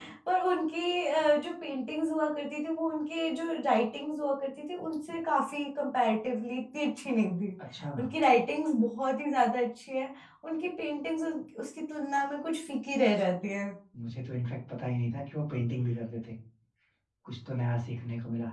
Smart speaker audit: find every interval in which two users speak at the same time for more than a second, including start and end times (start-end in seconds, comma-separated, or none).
none